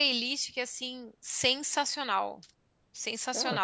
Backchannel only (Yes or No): No